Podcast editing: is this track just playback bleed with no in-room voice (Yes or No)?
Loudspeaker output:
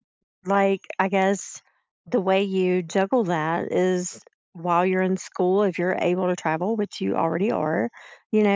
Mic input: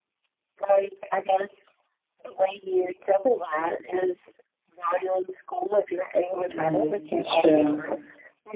No